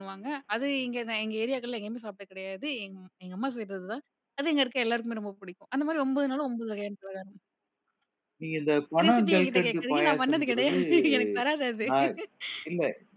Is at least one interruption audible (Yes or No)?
Yes